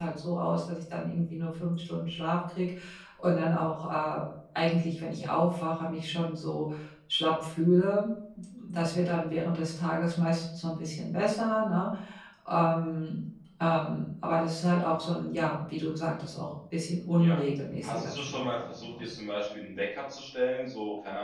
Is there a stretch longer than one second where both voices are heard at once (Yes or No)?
Yes